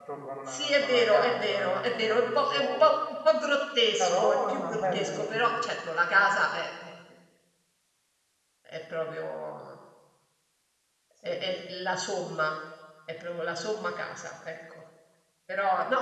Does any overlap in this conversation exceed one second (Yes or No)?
Yes